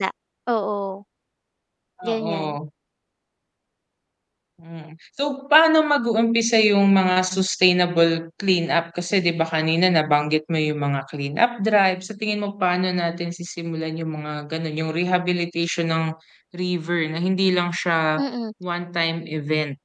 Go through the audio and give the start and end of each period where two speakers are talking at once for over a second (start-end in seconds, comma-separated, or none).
none